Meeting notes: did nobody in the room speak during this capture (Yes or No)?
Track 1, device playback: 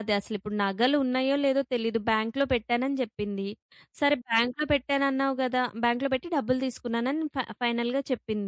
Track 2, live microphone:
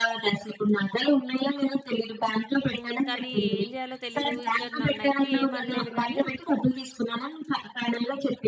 No